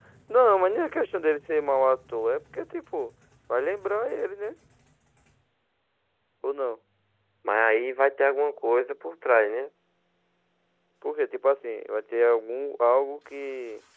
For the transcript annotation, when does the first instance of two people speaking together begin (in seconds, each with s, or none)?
none